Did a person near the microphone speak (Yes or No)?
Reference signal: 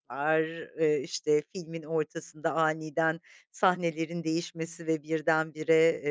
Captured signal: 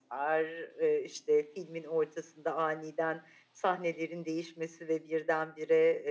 No